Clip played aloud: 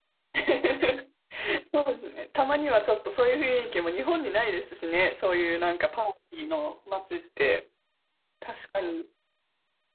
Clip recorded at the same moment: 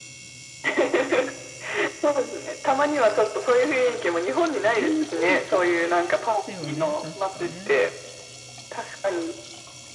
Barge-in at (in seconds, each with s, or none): 4.8 s